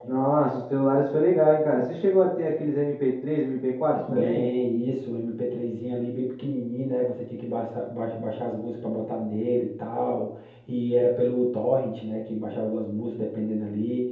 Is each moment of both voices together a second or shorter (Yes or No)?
Yes